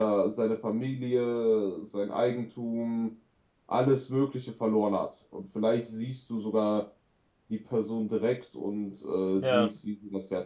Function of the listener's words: listening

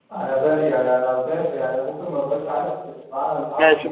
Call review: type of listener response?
taking over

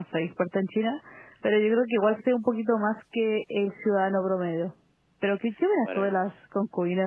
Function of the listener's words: listening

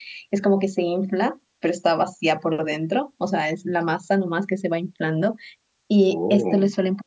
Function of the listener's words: listening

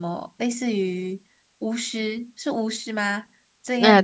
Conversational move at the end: listening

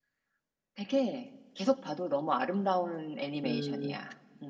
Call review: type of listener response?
taking over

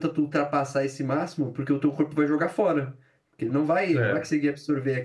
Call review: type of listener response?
listening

